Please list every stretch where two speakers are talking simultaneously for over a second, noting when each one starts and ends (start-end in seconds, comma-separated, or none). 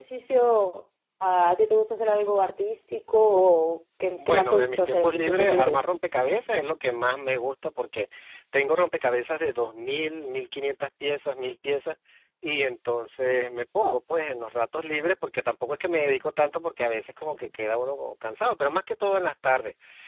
4.2-5.8